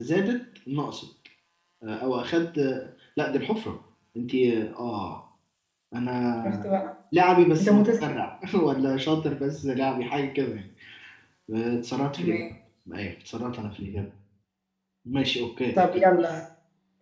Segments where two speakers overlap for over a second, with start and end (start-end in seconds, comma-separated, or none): none